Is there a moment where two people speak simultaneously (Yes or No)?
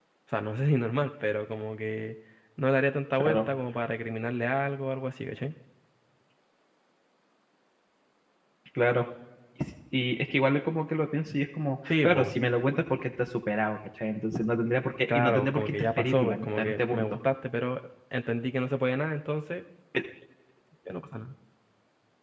Yes